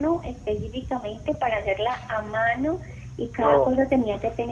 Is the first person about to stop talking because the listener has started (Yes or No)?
No